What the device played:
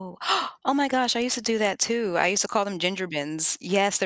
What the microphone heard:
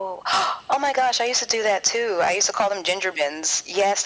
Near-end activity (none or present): none